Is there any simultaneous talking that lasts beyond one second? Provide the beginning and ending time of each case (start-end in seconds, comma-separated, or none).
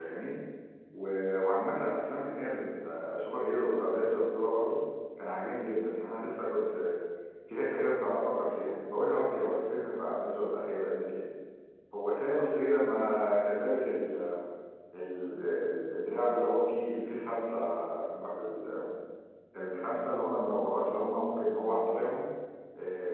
none